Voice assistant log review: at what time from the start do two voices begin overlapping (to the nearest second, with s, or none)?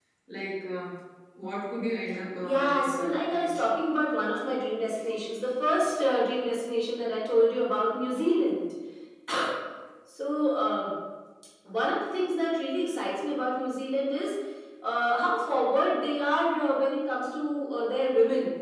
2 s